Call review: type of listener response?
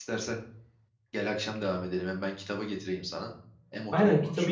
taking over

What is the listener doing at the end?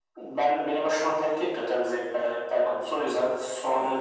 taking over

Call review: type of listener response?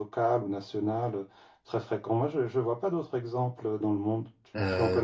taking over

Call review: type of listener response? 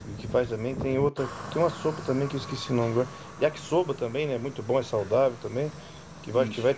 listening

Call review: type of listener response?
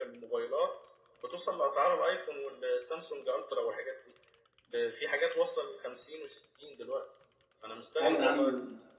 taking over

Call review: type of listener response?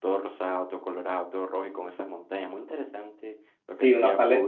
taking over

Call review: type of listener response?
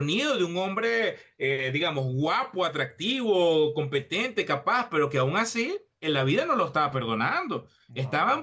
listening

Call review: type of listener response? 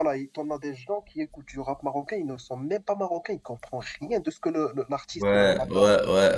taking over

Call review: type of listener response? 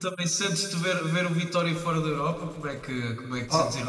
taking over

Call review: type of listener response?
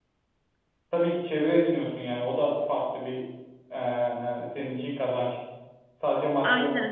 taking over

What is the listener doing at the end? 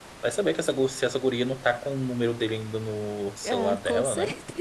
taking over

